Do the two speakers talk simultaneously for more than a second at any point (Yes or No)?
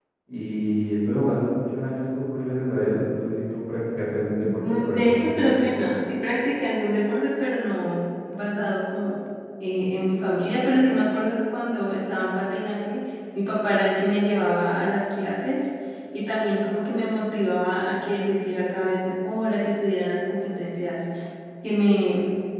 Yes